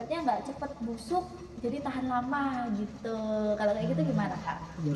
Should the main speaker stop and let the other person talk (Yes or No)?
Yes